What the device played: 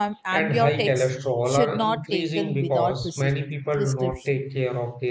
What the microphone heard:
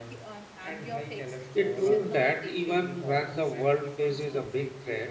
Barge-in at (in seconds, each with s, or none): 1.5 s